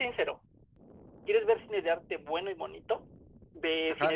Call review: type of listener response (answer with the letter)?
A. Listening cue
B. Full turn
A